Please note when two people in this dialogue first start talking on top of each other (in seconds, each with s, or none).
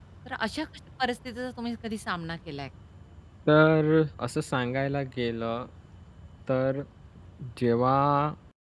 none